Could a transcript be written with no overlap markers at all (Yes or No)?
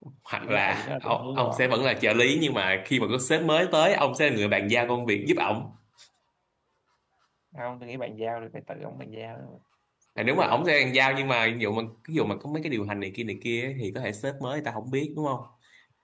No